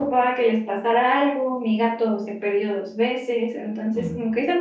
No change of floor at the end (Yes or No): Yes